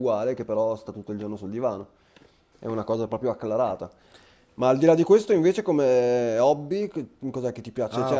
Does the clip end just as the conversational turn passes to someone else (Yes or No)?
Yes